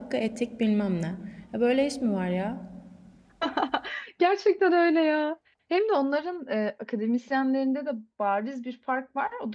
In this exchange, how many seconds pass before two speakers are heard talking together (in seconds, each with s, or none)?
none